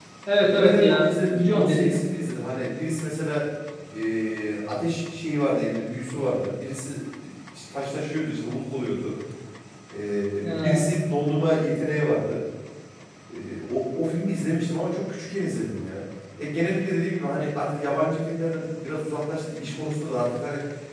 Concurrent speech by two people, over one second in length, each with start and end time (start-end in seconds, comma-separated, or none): 0.6-2.0